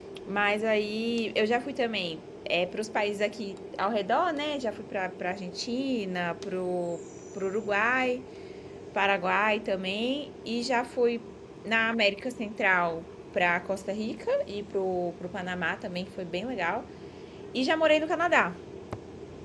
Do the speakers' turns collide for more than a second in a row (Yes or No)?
No